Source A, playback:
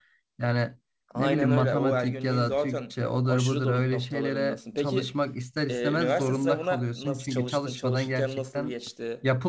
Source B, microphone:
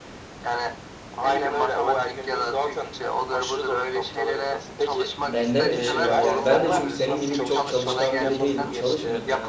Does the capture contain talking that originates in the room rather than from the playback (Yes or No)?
Yes